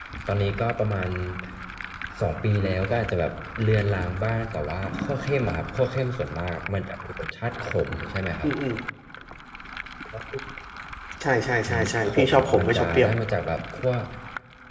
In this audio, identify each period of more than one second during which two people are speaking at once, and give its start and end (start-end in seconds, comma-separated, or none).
11.7-13.1